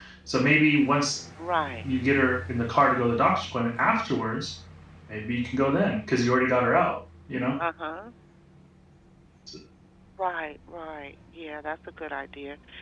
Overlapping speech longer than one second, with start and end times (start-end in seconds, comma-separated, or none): none